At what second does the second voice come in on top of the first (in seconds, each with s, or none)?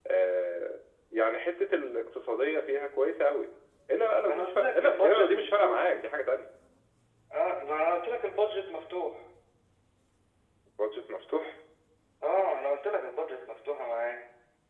4.2 s